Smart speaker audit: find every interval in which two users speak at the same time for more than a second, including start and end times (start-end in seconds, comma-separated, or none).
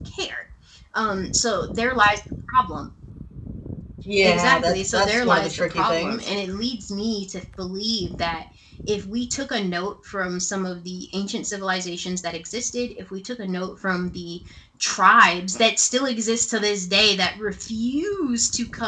4.2-6.3